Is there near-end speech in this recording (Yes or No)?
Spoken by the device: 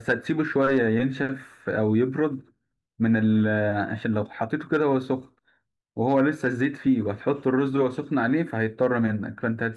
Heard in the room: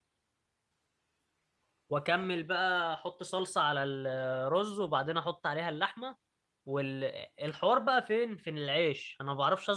Yes